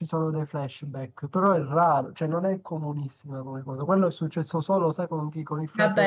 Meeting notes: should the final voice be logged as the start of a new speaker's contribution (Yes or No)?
Yes